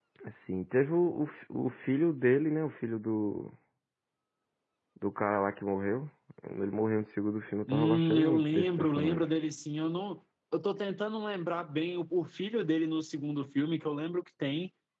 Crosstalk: present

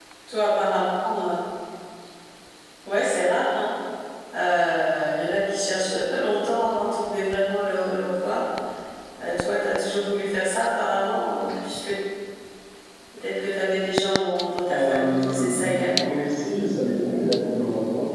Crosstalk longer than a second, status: present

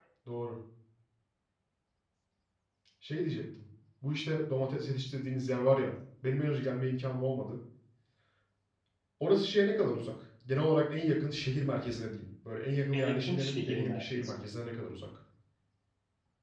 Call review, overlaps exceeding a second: present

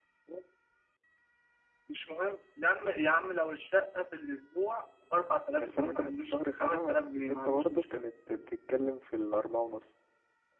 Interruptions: present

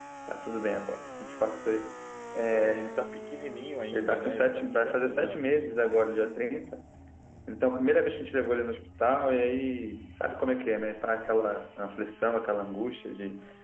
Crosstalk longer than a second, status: present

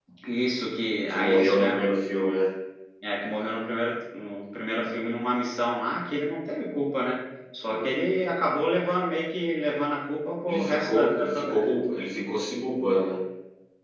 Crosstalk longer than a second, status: present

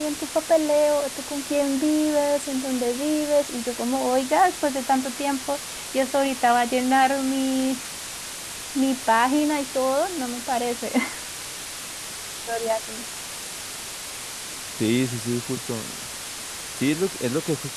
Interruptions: none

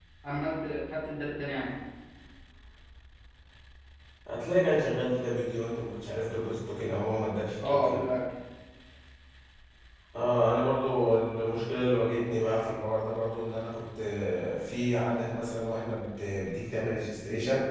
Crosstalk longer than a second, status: none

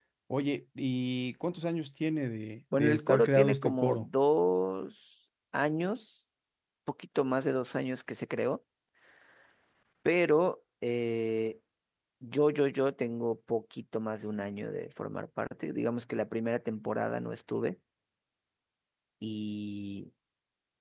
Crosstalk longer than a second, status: present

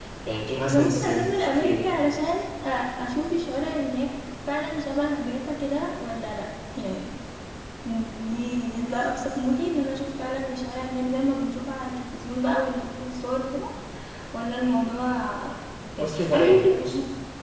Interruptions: present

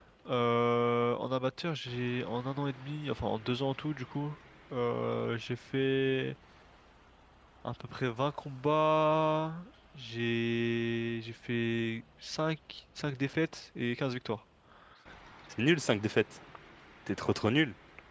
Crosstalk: none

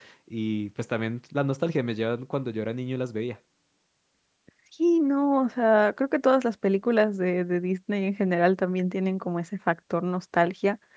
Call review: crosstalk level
none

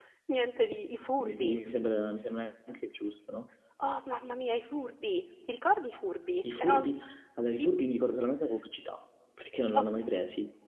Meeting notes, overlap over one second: none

